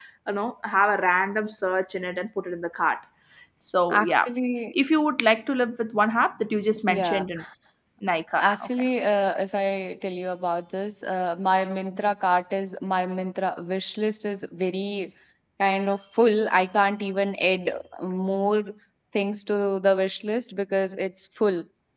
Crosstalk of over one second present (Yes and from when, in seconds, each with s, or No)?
No